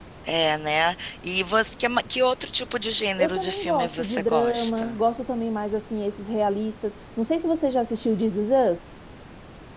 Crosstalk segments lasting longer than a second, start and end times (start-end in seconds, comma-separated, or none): 3.2-5.0